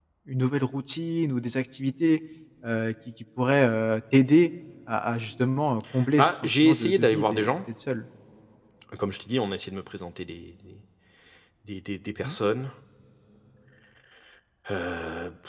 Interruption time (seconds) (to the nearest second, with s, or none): 6 s